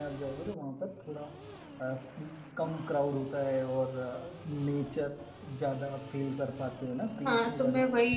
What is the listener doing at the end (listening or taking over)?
taking over